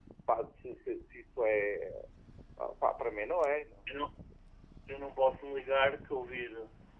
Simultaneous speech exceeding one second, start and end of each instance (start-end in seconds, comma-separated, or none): none